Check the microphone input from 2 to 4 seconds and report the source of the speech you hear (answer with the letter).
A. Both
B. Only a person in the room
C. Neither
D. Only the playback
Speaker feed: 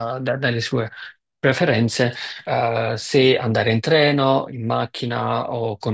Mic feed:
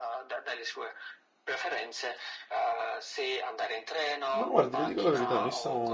D